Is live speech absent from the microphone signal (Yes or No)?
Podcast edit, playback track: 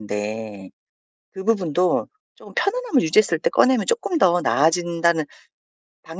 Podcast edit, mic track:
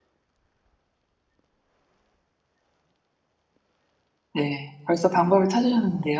No